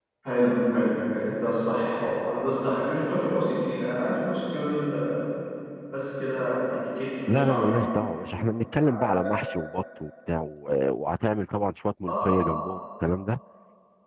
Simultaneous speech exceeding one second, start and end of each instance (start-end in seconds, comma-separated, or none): none